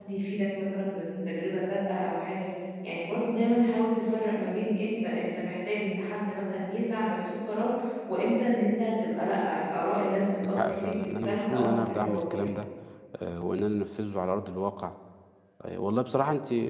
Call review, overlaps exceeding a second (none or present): present